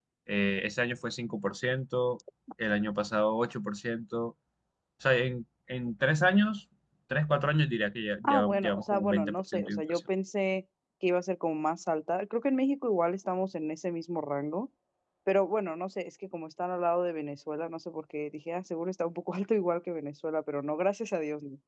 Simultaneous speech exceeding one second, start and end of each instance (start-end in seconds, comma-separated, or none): 8.2-10.0